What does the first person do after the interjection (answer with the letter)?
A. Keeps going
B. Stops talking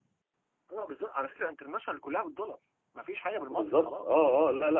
B